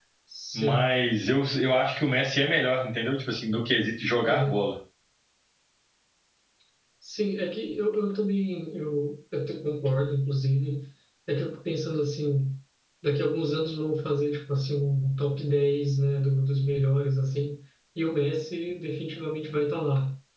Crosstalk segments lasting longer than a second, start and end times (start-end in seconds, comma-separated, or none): none